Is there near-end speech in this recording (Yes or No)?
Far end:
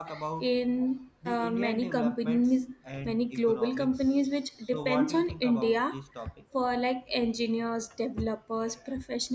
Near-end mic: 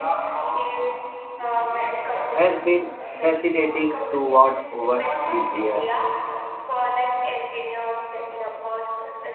Yes